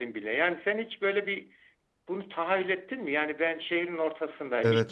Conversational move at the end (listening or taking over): listening